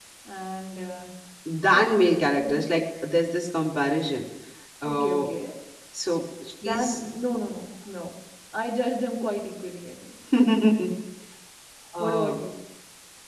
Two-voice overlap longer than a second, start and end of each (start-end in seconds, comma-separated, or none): none